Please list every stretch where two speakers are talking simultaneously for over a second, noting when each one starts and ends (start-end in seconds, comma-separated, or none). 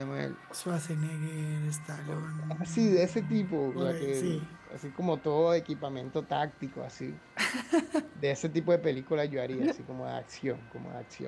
2.6-4.2